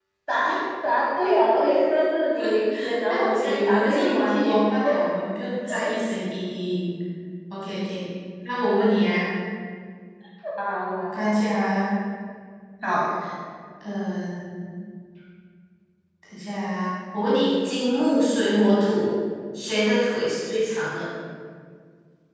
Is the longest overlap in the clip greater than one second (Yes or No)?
Yes